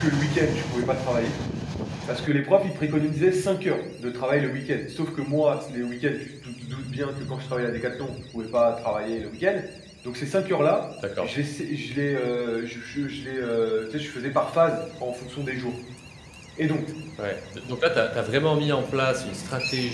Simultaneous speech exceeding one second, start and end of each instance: none

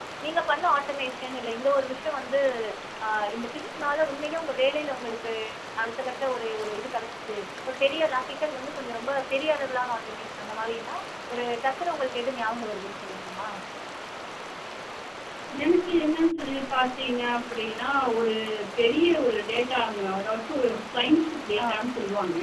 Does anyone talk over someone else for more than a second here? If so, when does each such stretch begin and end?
none

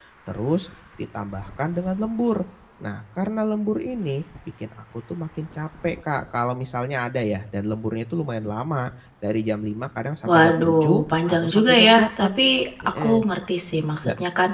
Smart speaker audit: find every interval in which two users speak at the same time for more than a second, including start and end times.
10.3-12.4

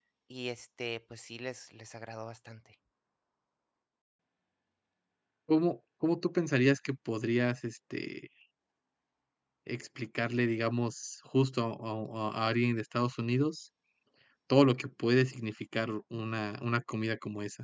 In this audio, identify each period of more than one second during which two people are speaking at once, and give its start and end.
none

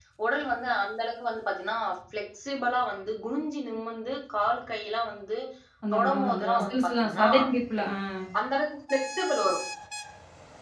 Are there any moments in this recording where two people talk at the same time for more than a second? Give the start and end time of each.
5.9-7.3

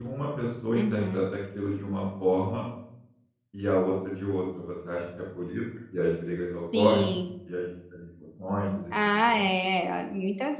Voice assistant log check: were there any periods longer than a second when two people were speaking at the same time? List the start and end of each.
none

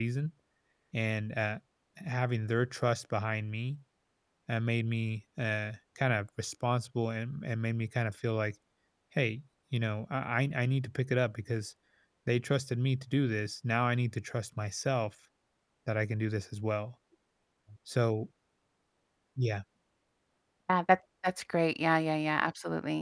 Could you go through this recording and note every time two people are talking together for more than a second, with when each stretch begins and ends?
none

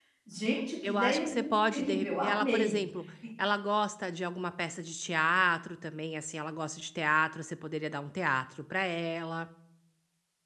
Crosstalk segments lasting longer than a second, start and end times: 0.8-2.8

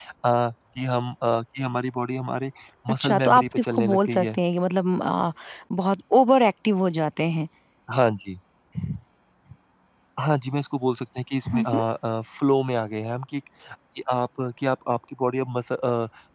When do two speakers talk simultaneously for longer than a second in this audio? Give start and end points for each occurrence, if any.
2.9-4.4

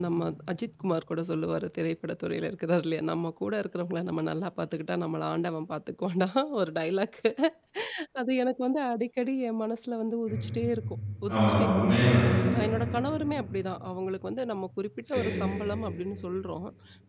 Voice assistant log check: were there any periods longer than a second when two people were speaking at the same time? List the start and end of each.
none

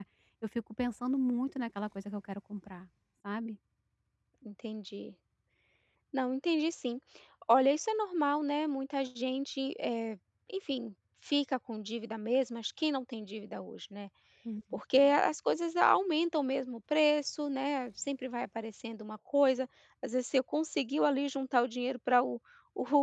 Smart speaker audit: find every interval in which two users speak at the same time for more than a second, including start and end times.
none

